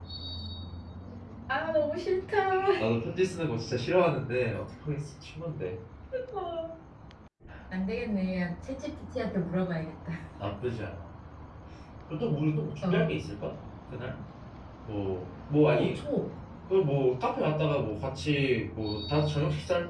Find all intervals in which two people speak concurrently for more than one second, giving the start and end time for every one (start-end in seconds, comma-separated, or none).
none